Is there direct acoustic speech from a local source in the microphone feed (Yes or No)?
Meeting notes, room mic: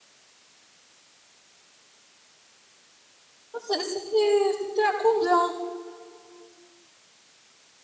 Yes